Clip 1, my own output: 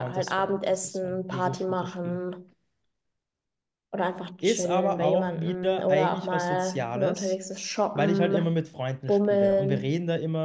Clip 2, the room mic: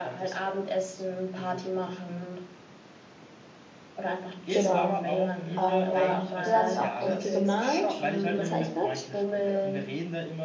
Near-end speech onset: 4 s

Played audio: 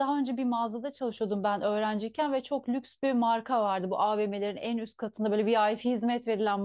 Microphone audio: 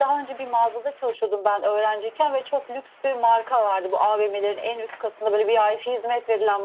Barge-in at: none

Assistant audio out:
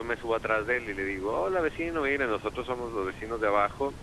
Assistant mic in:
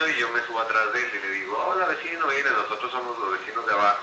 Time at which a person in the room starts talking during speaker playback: none

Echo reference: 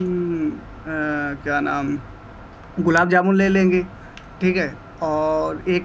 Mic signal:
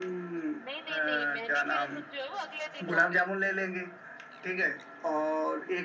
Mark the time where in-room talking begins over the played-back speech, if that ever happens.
1 s

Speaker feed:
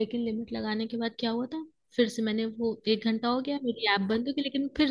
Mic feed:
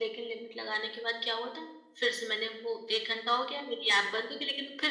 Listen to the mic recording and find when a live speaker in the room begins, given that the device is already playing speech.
none

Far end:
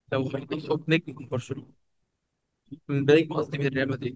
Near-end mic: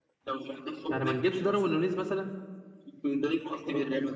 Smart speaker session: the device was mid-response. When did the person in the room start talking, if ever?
1 s

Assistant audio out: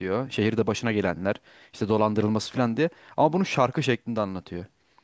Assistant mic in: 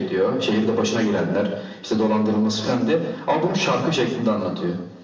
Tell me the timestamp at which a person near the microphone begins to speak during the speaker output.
none

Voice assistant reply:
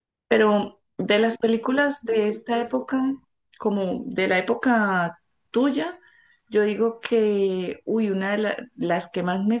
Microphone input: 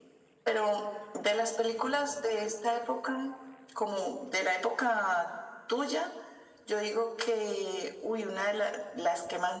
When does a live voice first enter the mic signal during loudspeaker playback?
none

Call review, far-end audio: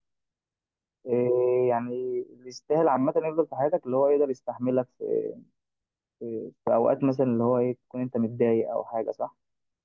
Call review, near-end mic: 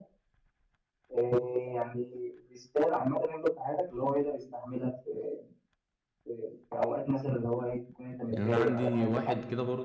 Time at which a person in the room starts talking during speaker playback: 8 s

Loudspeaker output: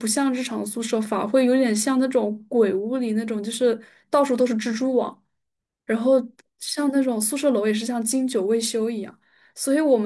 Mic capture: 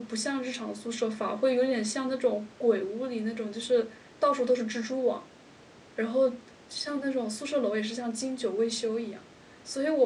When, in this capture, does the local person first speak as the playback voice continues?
none

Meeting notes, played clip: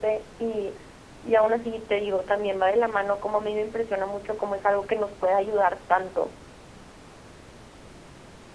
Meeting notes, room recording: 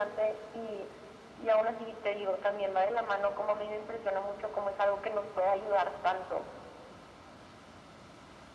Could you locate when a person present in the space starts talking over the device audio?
none

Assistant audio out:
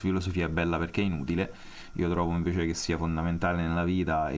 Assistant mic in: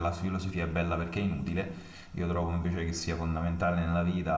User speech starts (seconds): none

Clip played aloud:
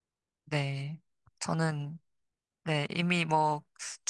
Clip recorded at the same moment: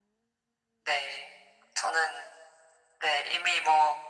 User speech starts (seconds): none

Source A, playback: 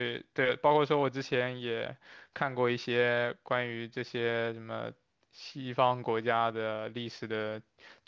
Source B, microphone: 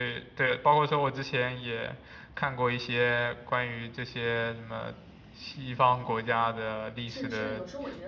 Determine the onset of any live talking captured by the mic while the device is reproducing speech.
7 s

